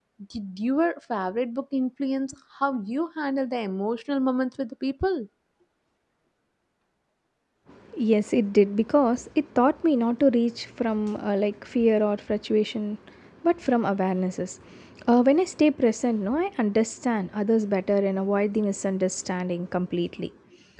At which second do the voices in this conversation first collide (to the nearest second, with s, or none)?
none